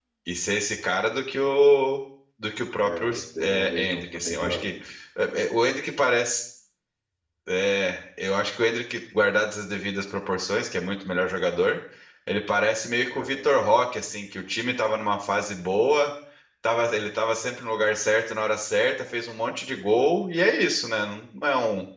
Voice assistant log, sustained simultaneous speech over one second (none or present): present